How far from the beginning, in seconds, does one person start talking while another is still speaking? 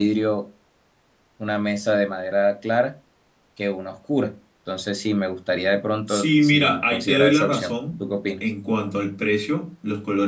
6 s

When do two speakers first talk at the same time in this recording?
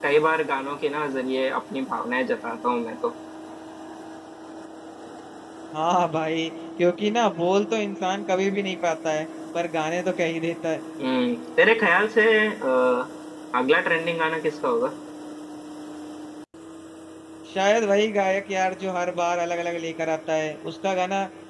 none

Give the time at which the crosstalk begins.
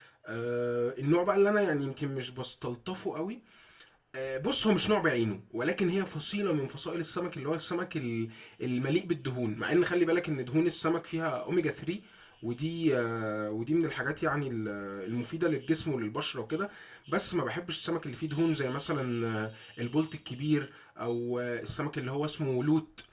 none

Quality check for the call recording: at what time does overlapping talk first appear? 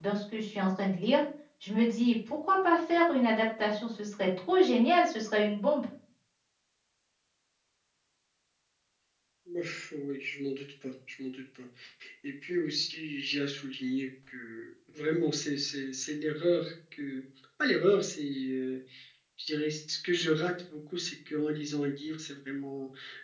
none

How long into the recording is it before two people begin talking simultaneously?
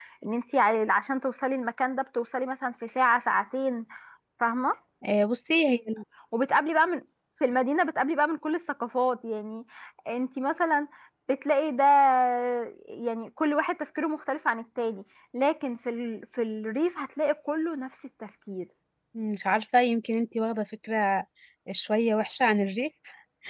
none

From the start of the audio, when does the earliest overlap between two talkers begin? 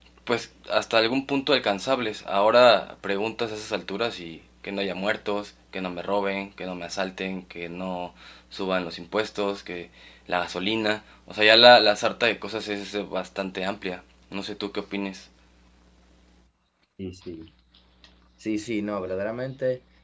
none

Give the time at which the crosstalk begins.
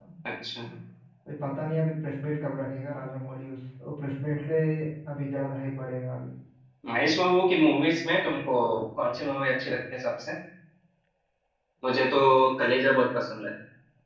none

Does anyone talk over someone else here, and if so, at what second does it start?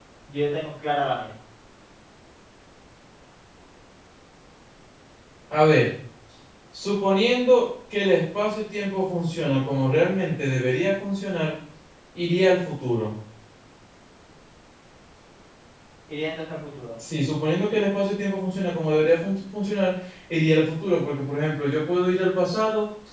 none

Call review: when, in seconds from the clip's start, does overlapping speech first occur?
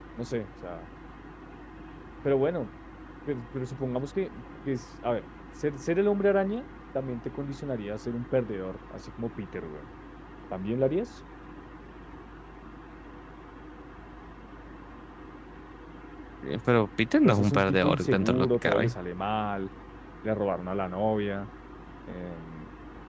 17 s

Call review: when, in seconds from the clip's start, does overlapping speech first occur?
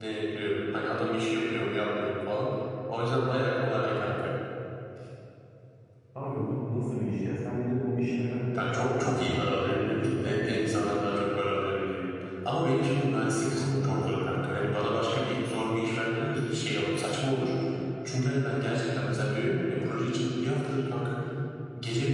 9 s

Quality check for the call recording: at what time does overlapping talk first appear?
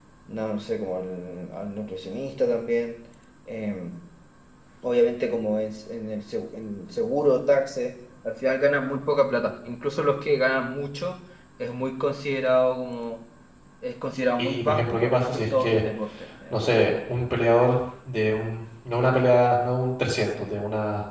14 s

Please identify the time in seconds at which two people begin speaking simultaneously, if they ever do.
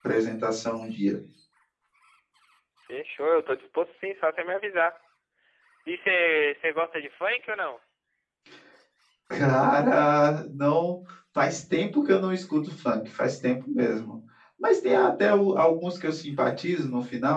none

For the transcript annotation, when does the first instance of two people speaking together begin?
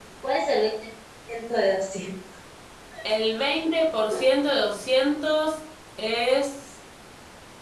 none

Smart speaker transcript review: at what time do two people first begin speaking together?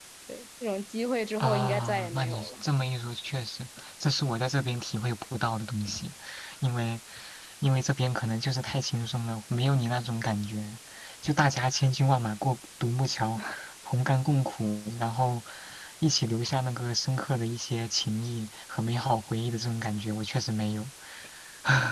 1 s

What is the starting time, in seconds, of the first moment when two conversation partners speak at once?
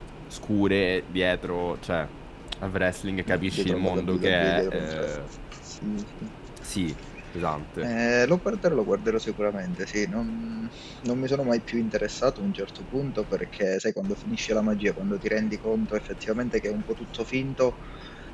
3 s

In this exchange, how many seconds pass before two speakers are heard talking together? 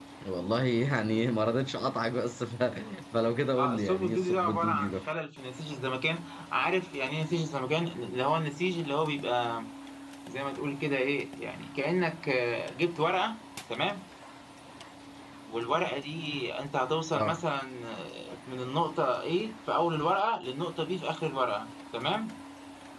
4 s

